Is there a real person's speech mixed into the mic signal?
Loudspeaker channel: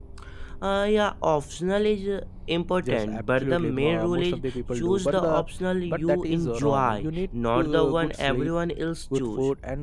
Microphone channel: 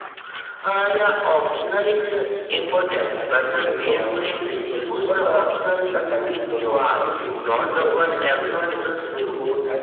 No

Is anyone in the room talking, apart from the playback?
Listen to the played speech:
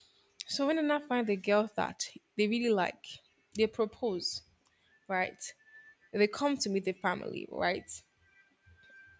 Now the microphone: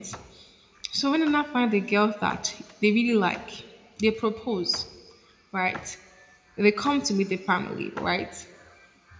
No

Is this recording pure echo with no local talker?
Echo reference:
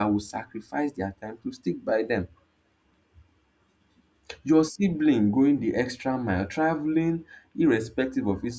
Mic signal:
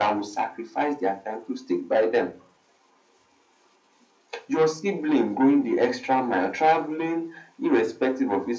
Yes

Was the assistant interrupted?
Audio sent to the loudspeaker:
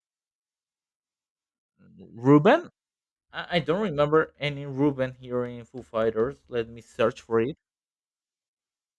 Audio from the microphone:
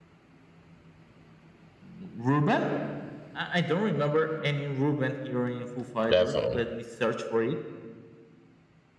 Yes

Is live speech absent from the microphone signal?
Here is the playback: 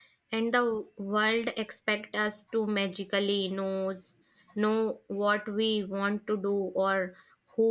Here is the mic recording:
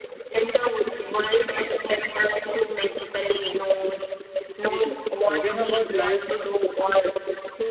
No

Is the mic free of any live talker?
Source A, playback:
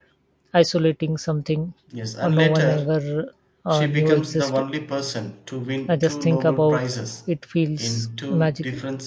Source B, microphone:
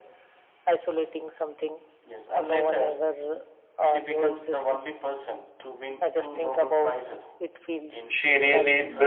No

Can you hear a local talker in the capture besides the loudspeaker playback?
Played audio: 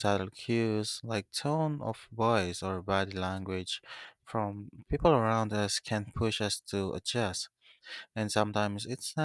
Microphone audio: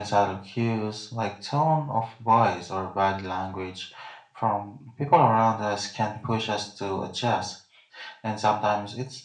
No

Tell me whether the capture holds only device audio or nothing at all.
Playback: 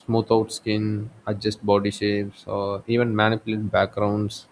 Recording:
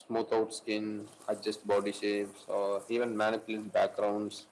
Yes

